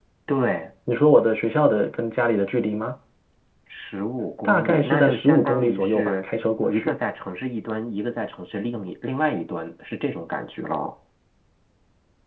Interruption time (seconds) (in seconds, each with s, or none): 4.4 s